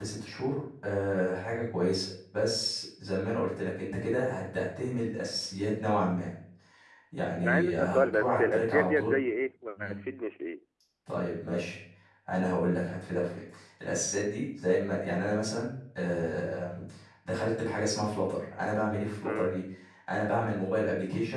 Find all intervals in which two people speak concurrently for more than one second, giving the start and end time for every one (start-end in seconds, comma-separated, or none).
7.4-9.1